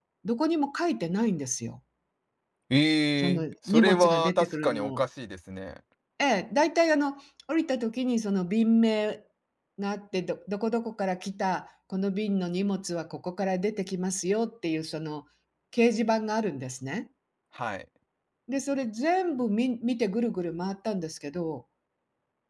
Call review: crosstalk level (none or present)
present